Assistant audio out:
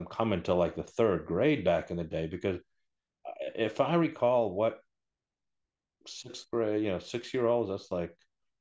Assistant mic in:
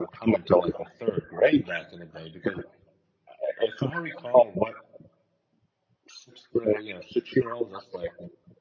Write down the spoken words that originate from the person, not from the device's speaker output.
none

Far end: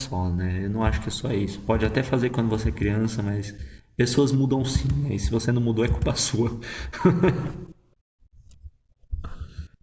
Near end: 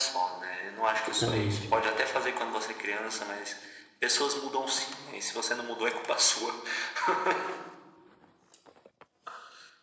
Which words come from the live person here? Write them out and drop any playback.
exatamente.

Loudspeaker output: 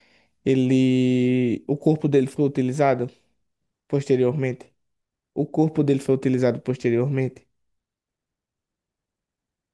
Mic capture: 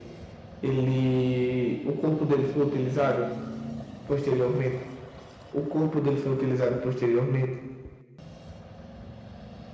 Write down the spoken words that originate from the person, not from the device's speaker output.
none

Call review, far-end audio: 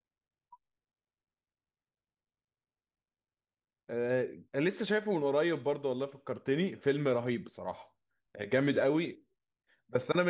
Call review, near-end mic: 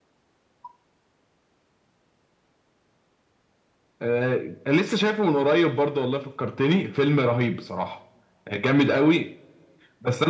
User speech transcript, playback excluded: none

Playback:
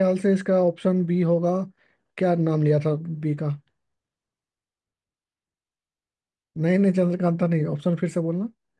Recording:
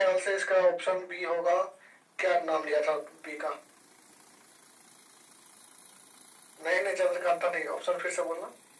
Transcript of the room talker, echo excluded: none

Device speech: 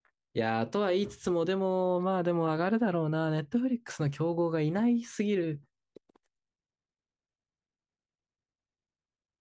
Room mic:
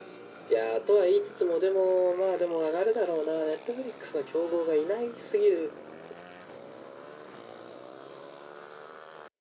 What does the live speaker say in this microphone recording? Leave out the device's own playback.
none

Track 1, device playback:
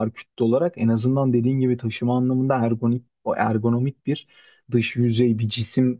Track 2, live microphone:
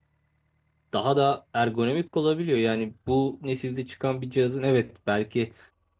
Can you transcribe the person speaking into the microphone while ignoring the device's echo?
daha da ergonomik olabiliyor. Yani bu nesilde çıkan bir cihazın evet belki

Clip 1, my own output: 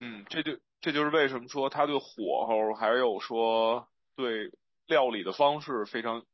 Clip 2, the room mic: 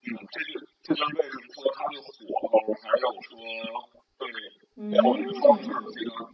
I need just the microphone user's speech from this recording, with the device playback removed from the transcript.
嗯，

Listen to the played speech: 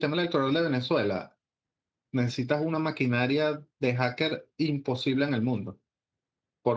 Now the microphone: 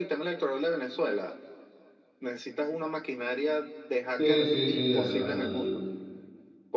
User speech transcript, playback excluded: Sí, sí, sí, al, al-

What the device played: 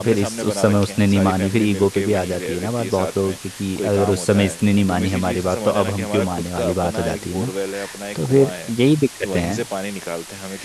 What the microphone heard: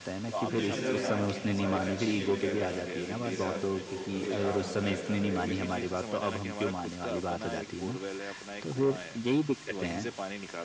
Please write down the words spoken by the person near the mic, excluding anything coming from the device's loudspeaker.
कुछ जिम्मेदारियां आती हैं और अच्छी जिम्मेदारियां आती हैं कि जैसे अब उनको कभी चार धाम की यात्रा पे लेके जाना है

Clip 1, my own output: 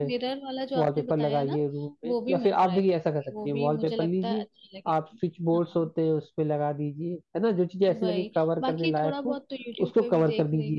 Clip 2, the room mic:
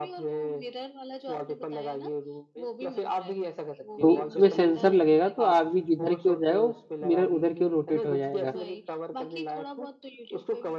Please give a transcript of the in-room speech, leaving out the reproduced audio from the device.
तो उसमें सेंसर लगेगा तो आदमी जिधर की ओर जाएगा वो मिरर उधर की ओर रोटेट हो जाएगा

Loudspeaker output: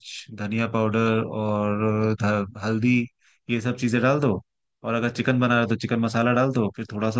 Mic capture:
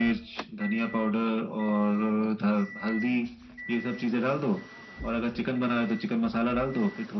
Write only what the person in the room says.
none

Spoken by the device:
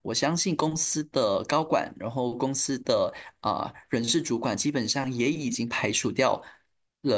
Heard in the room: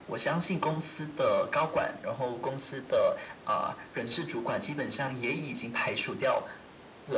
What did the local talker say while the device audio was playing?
none

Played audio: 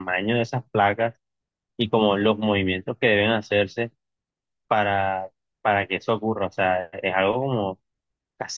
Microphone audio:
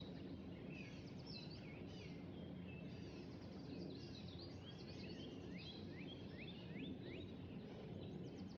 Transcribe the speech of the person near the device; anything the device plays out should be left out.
none

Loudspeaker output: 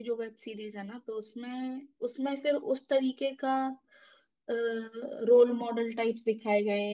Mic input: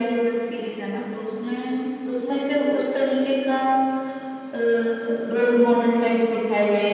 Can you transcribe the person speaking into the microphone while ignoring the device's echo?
none

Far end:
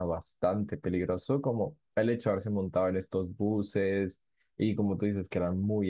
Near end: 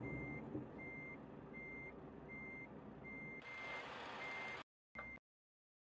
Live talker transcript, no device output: none

